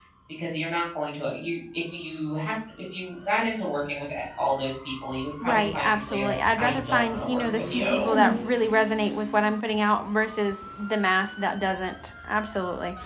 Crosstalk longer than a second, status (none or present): present